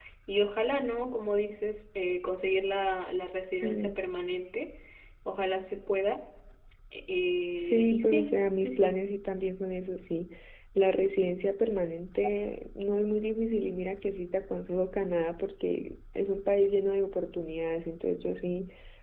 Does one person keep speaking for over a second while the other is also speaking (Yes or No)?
Yes